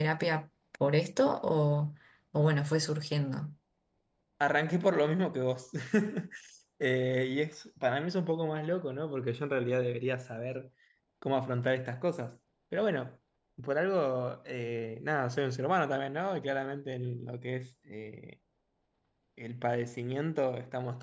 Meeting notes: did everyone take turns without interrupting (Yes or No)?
Yes